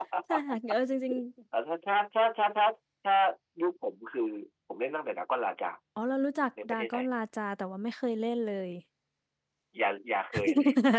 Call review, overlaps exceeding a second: none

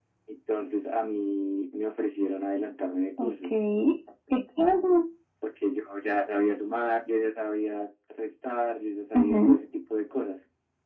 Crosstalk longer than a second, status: none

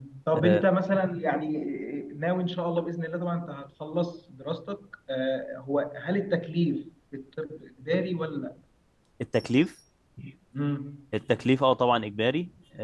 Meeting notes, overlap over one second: none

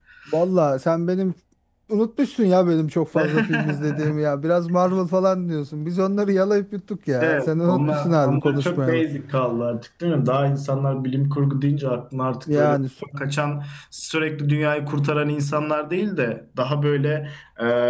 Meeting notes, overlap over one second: present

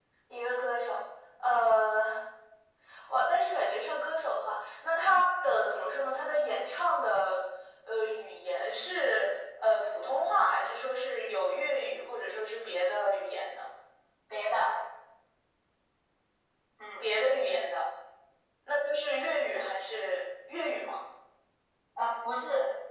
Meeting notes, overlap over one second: none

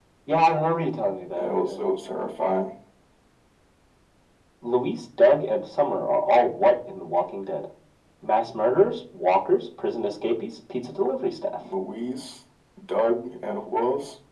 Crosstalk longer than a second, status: none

